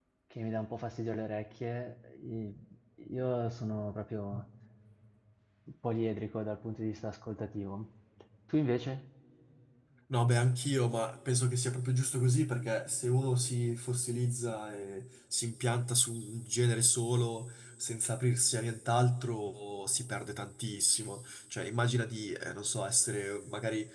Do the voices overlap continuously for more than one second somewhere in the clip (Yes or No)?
No